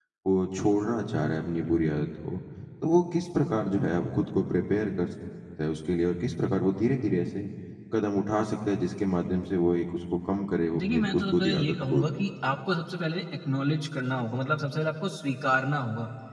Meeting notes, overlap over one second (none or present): present